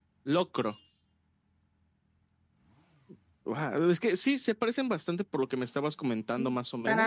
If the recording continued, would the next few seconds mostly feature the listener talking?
Yes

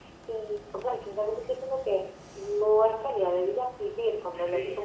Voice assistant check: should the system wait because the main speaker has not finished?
No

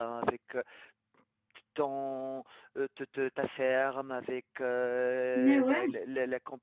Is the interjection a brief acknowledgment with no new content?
Yes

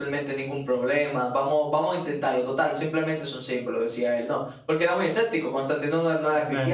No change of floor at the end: No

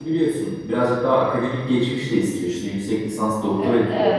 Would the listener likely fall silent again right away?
Yes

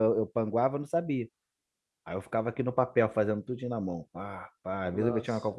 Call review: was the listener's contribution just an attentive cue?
Yes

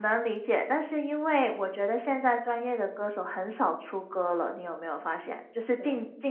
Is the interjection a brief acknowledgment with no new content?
Yes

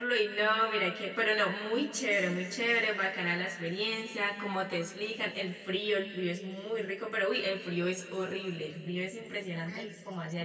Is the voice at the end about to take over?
Yes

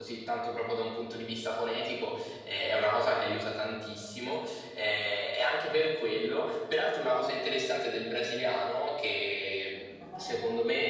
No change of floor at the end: Yes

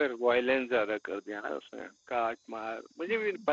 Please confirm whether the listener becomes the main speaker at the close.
No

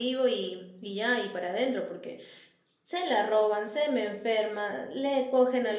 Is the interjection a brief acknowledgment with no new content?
Yes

